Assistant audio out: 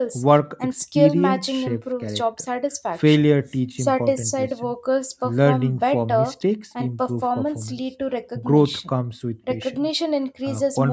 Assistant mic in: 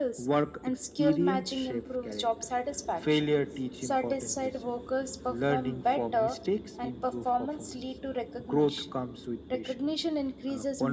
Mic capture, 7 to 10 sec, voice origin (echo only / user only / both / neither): echo only